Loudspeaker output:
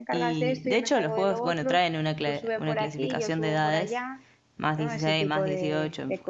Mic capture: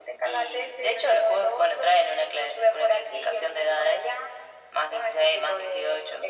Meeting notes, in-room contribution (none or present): none